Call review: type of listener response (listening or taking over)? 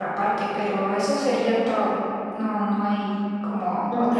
taking over